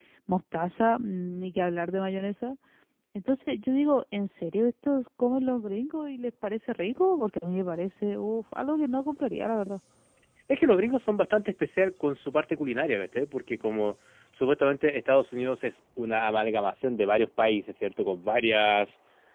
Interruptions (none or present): none